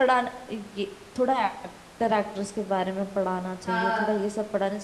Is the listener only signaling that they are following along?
Yes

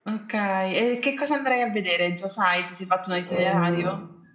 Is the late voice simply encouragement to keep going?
No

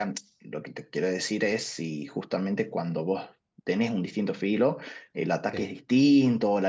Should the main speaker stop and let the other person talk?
No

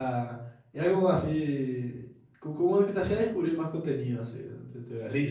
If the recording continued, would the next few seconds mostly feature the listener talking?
Yes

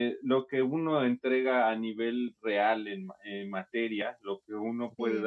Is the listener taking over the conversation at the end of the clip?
No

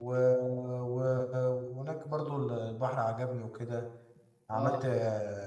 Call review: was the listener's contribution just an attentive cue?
Yes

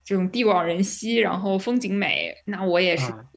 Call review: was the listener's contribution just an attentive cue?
Yes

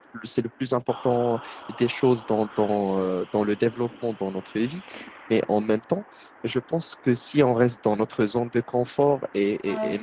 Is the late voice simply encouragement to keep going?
Yes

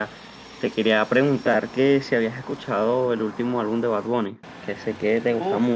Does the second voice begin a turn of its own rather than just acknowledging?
No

